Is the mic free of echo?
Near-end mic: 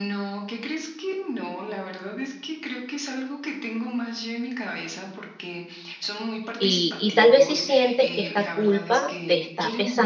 No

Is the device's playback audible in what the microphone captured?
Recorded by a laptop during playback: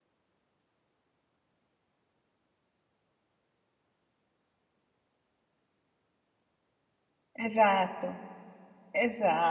No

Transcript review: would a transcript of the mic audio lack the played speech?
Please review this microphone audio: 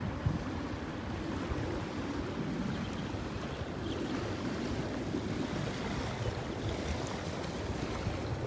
Yes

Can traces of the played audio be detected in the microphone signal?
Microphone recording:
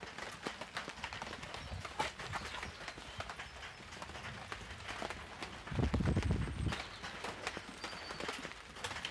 No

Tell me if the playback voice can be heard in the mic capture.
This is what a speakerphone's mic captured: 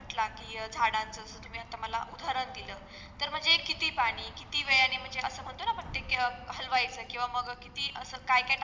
Yes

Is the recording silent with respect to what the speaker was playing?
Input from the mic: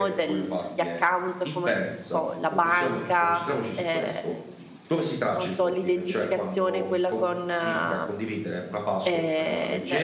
No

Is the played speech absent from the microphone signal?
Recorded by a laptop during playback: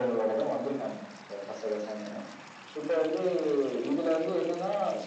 No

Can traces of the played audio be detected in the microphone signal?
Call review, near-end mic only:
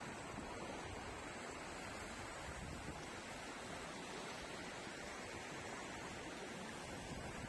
No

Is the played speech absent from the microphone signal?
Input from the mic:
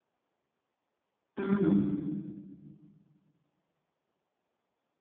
Yes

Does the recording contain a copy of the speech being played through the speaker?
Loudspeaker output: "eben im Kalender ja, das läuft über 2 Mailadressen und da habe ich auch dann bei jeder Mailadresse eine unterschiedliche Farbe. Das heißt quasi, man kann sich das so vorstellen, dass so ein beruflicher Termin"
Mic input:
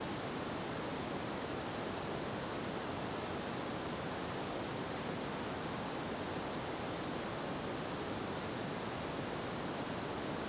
No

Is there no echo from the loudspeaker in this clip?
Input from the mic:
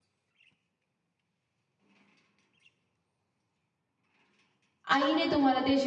Yes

